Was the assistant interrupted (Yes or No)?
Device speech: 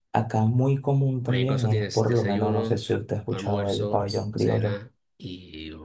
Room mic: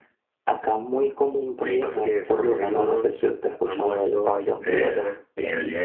Yes